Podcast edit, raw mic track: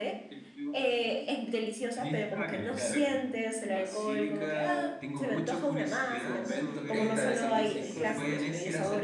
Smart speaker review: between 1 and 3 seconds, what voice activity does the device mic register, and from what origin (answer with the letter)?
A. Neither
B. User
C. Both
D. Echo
C